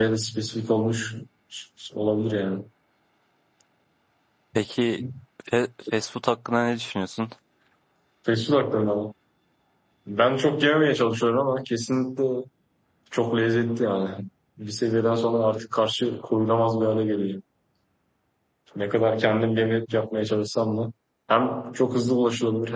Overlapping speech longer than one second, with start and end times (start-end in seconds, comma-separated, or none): none